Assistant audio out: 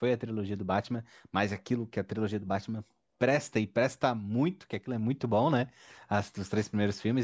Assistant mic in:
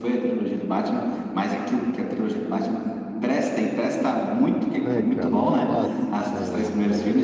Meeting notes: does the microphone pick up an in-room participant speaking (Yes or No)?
Yes